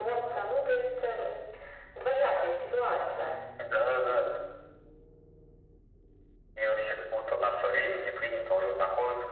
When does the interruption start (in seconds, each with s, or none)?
none